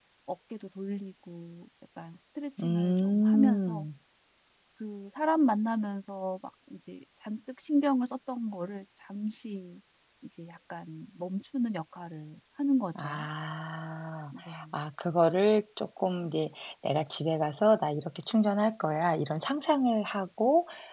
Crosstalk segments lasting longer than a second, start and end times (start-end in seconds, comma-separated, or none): 2.6-3.8